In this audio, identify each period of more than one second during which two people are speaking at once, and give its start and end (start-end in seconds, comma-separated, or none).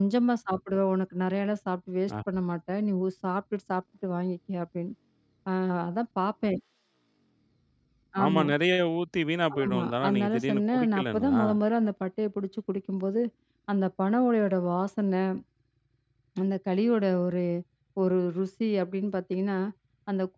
9.6-11.4